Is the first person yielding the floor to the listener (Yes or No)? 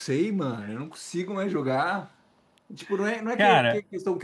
No